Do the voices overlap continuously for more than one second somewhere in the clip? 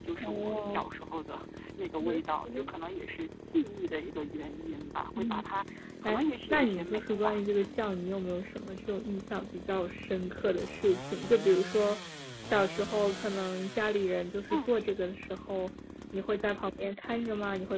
Yes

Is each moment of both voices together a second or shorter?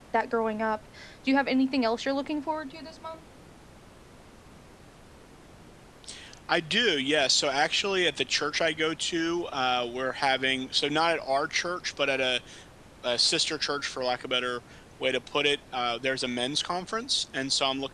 Yes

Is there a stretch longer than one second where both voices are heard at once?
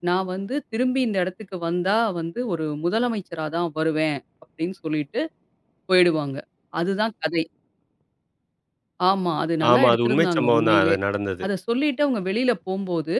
Yes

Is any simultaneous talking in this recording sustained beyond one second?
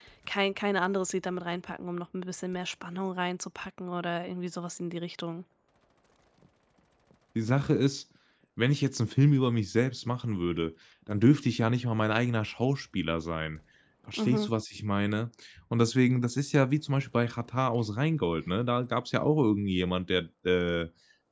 No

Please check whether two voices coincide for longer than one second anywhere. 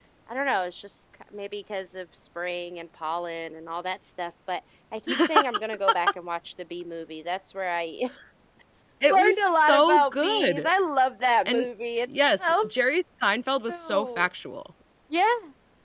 Yes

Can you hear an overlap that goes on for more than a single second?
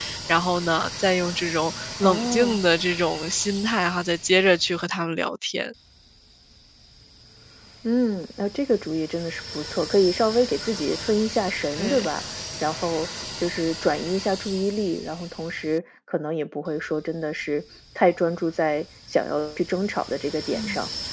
No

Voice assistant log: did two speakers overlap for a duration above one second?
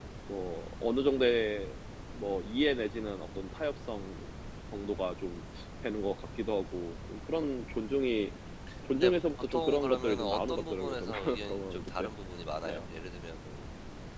Yes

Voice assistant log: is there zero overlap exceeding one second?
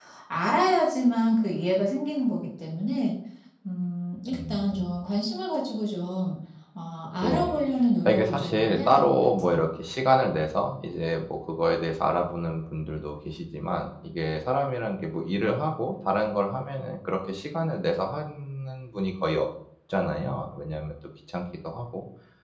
No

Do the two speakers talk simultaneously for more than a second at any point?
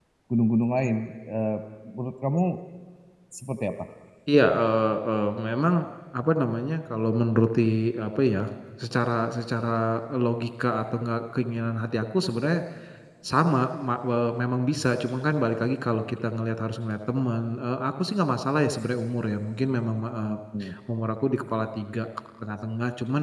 No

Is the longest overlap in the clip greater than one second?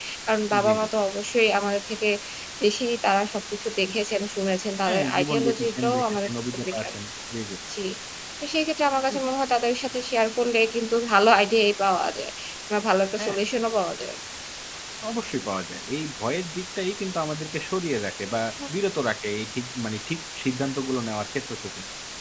Yes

